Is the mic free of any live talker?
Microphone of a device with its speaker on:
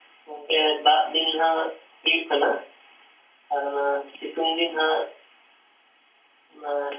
Yes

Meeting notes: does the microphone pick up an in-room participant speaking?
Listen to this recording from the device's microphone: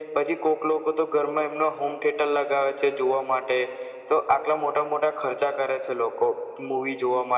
No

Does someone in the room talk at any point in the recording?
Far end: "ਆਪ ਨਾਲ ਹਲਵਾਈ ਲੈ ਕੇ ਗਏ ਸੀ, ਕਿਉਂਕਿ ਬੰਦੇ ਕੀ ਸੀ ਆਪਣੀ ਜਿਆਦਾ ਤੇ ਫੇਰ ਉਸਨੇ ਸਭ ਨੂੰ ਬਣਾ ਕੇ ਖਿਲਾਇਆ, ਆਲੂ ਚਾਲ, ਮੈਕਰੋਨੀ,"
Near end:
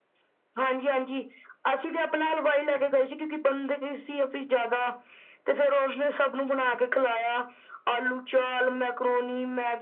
No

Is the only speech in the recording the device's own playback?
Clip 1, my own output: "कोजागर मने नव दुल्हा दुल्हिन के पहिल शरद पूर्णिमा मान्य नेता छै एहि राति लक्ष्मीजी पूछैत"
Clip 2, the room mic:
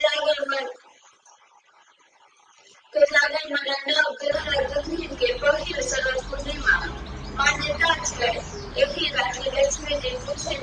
Yes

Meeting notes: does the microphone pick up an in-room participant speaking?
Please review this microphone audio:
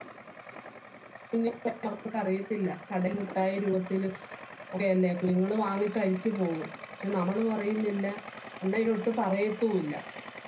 Yes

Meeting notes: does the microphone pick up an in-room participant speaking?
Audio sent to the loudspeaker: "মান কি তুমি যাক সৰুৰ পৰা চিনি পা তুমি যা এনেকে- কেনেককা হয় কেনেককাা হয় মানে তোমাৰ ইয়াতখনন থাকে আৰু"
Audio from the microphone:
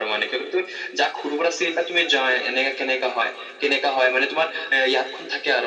No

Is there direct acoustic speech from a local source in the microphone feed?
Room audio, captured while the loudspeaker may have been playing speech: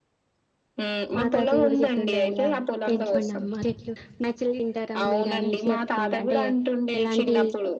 Yes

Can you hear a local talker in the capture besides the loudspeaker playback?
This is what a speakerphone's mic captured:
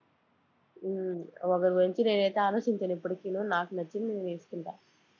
Yes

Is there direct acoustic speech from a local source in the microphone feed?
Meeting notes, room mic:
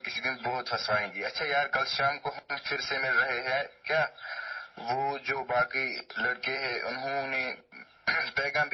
No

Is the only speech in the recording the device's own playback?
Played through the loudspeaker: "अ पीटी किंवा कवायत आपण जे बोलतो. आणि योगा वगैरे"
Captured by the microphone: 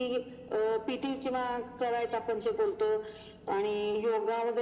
Yes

